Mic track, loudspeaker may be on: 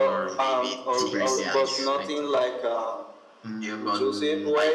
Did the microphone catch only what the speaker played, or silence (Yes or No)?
No